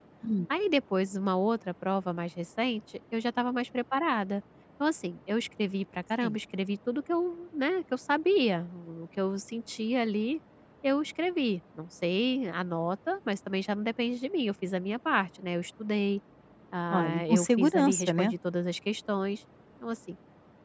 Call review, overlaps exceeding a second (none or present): present